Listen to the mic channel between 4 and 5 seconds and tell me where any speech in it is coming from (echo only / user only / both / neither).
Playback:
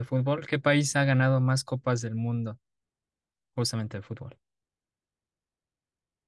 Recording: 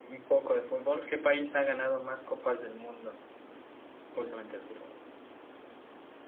echo only